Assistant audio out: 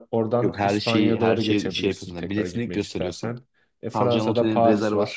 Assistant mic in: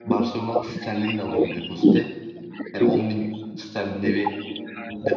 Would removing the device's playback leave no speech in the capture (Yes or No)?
No